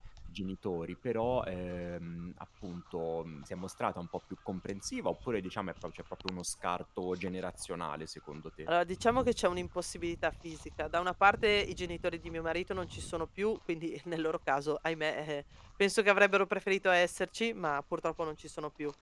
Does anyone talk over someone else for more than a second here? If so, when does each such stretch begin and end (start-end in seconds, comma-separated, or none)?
none